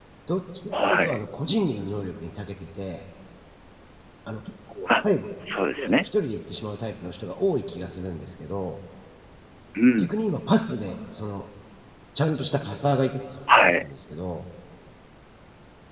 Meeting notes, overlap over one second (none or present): none